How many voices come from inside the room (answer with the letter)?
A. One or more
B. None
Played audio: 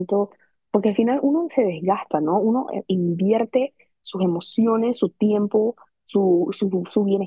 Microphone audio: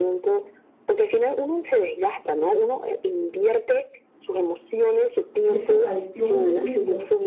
A